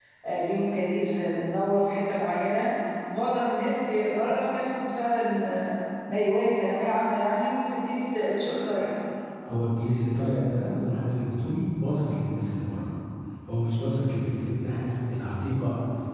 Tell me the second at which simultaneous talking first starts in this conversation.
none

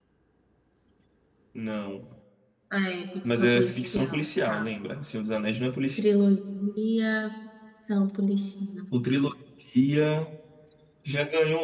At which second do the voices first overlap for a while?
3.2 s

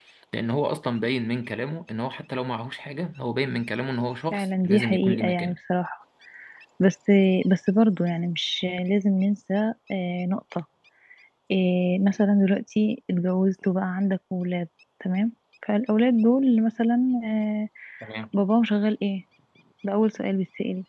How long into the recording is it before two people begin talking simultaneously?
4.3 s

